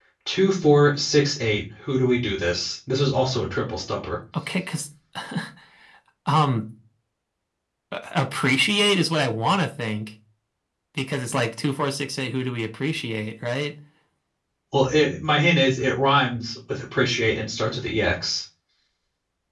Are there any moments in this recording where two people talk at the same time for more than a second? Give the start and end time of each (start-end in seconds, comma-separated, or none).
none